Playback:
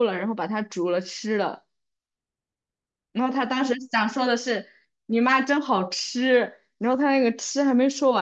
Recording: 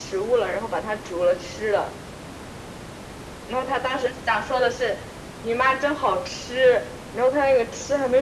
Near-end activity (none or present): none